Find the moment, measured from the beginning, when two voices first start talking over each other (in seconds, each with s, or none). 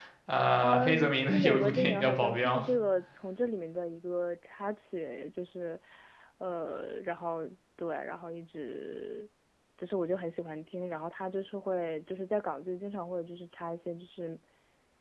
0.6 s